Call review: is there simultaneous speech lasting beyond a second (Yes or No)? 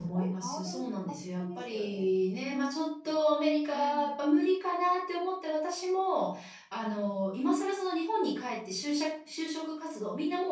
Yes